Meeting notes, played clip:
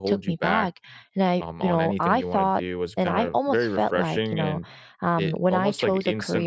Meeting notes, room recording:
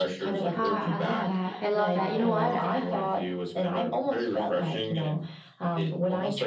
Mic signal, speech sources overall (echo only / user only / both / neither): both